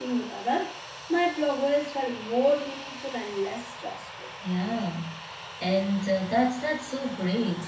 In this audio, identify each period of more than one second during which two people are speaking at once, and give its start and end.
none

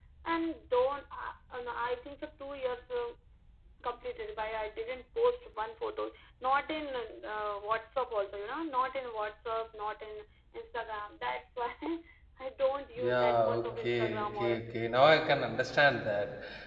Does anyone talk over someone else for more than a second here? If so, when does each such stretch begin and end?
13.0-14.8

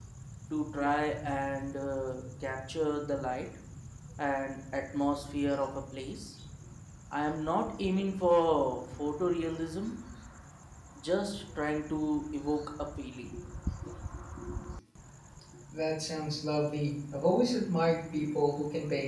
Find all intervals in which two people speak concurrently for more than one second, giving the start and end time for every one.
none

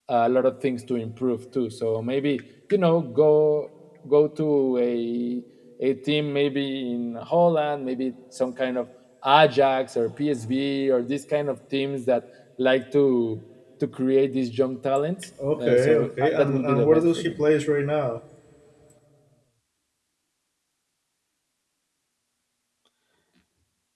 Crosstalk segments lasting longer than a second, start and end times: 15.6-17.4

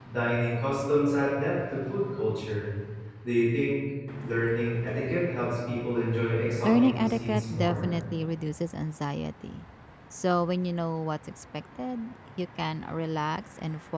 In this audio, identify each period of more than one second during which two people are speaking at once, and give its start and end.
6.6-7.9

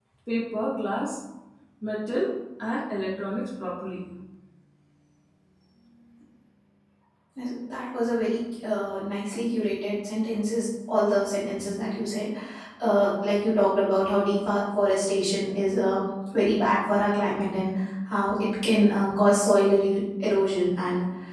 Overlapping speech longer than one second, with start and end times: none

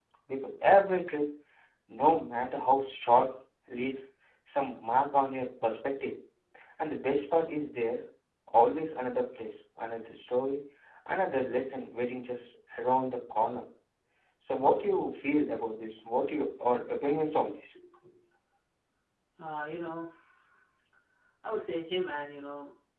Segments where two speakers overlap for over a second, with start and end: none

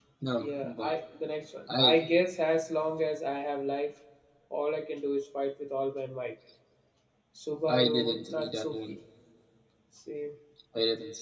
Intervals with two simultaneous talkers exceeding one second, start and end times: 7.7-8.9

